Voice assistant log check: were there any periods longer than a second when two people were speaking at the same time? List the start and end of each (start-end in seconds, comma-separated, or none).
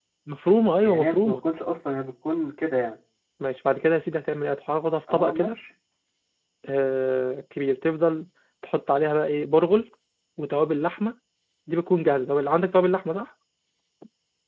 none